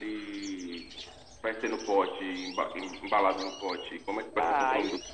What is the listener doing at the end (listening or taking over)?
taking over